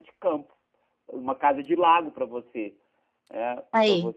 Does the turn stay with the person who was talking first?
Yes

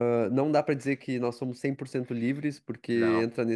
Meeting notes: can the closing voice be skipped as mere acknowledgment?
Yes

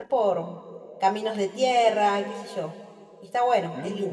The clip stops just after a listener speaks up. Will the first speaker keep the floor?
No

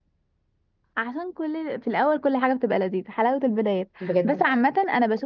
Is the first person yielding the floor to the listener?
No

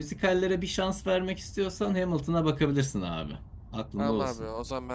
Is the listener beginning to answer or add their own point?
Yes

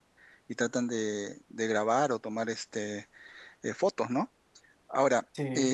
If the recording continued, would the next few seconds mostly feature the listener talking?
No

